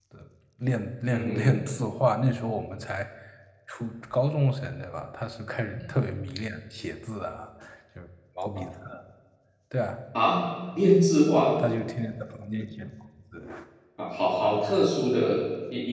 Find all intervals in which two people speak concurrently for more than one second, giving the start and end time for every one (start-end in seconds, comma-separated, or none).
none